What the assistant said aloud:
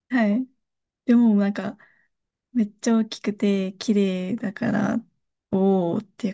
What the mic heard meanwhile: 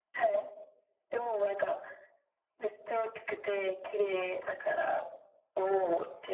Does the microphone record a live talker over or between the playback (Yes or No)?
No